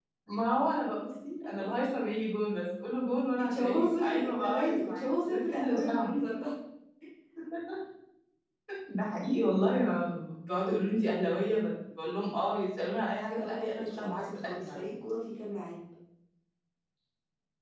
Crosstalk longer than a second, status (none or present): present